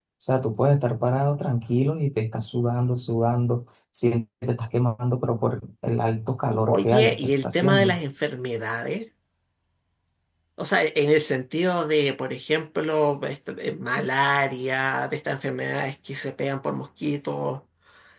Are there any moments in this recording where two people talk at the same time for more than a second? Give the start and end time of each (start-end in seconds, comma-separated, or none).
6.7-8.0